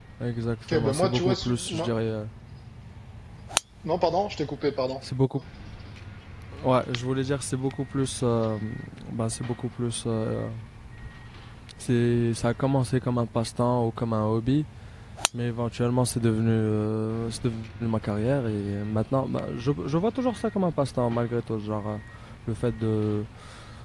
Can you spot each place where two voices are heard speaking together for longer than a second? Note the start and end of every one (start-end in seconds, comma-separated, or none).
0.7-1.9